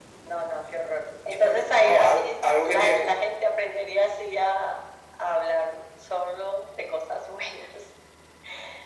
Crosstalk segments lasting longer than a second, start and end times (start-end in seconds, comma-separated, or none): 1.3-3.1